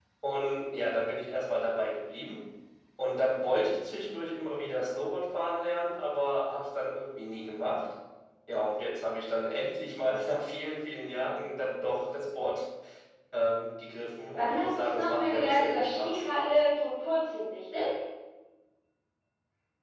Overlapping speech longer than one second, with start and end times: 14.3-16.2

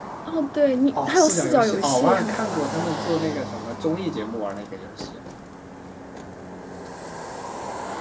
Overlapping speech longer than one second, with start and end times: 0.9-2.6

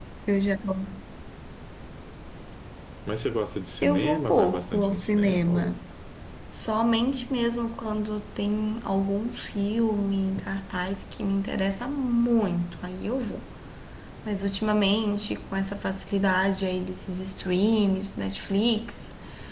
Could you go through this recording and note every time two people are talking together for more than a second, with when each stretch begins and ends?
3.8-5.8

